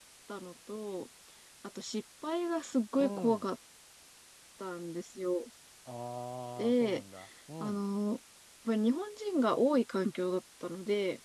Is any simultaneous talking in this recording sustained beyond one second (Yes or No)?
No